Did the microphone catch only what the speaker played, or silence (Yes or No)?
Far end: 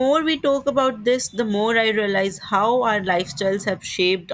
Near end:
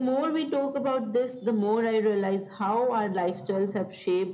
Yes